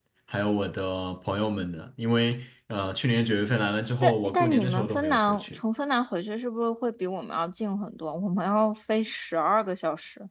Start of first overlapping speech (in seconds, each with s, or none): 4.0 s